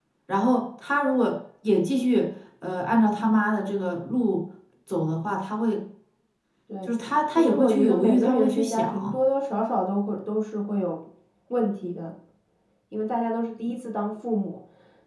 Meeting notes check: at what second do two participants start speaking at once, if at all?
7.3 s

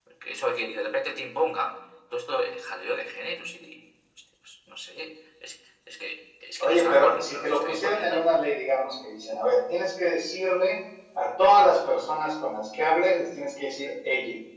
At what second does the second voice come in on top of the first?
6.6 s

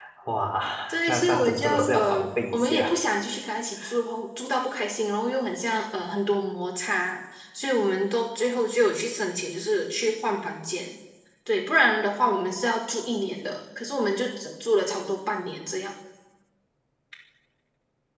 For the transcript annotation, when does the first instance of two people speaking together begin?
1.1 s

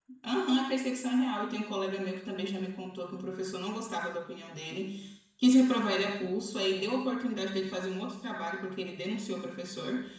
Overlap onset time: none

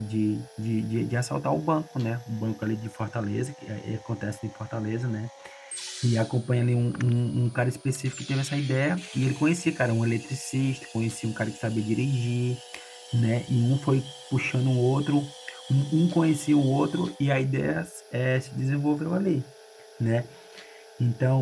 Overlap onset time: none

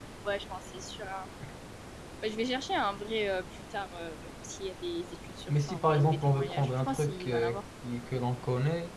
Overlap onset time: 5.5 s

